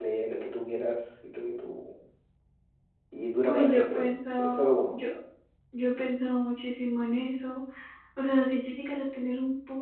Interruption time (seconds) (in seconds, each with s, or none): 3.4 s